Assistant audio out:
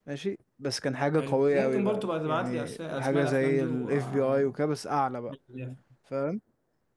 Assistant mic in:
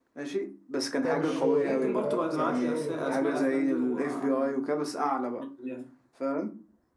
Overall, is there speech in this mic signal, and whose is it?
both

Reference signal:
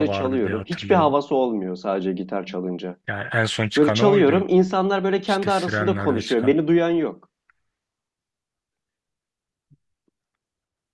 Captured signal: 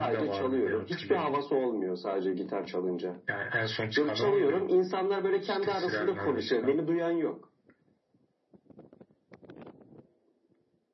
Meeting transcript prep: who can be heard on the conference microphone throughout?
echo only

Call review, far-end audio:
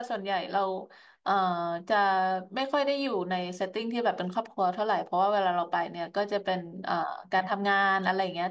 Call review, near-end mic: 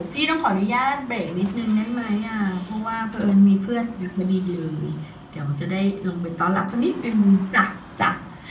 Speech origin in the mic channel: user only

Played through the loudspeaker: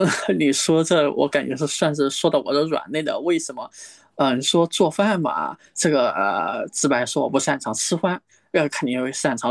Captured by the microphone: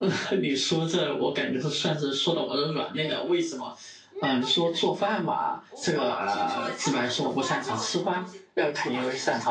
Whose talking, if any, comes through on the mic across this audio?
both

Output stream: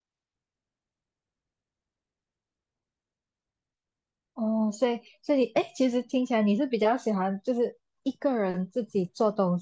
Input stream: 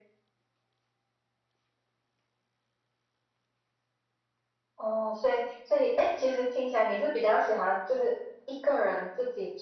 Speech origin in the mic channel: echo only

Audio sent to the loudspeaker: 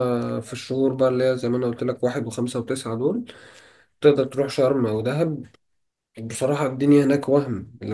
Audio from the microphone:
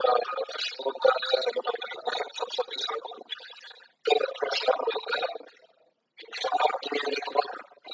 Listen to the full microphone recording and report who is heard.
echo only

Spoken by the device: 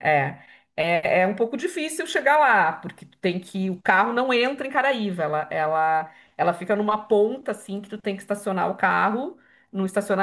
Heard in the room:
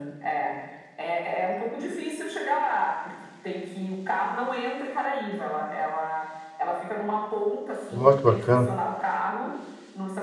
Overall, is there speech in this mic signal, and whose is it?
both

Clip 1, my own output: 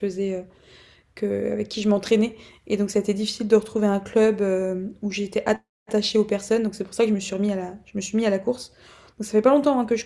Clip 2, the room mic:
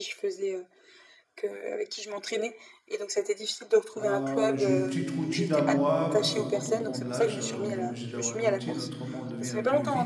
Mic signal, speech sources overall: both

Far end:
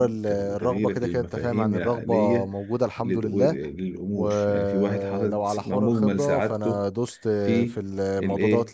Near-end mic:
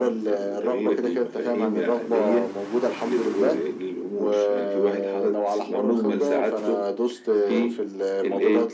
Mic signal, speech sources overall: echo only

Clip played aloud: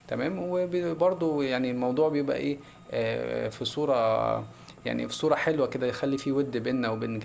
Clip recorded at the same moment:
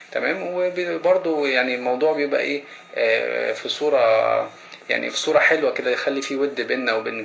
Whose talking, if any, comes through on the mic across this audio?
echo only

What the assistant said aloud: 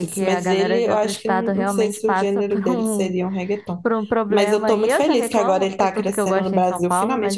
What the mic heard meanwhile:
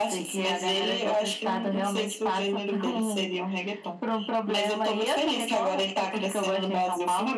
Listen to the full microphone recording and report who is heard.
echo only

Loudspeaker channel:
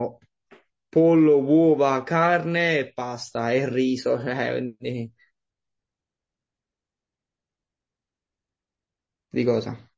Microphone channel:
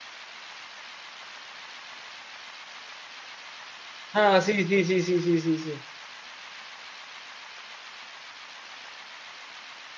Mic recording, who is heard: user only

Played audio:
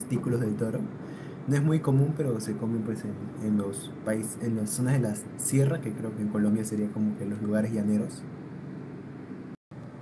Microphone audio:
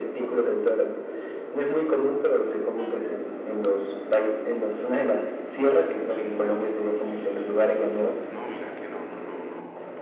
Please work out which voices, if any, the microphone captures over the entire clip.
both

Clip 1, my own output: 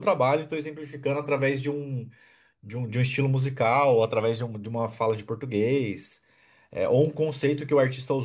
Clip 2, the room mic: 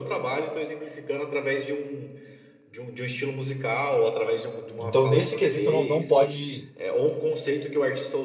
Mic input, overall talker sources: both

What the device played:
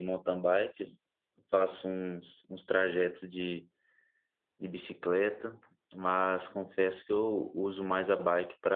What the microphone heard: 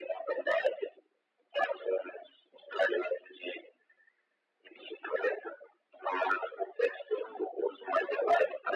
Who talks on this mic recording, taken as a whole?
echo only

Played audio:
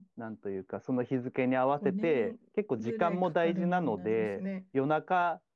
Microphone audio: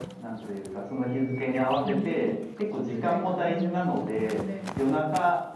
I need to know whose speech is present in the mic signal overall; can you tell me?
echo only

